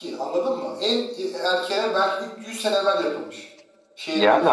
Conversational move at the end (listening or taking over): taking over